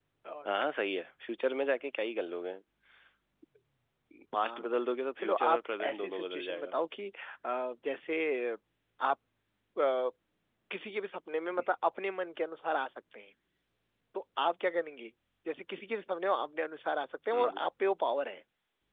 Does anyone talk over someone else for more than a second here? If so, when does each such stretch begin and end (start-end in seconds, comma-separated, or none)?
5.2-6.7